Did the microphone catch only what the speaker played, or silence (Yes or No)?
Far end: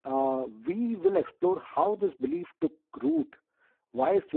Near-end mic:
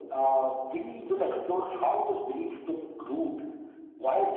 Yes